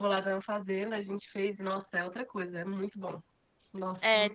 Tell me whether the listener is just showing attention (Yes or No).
No